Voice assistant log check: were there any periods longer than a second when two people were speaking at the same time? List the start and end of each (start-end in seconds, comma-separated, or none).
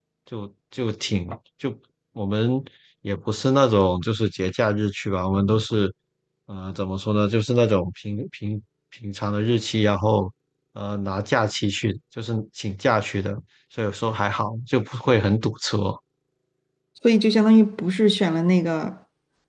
none